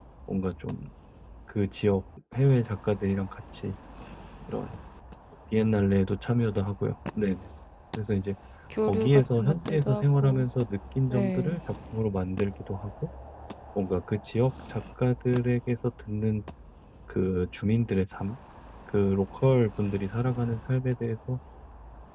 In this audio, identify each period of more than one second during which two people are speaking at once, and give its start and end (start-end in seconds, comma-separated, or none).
8.8-10.5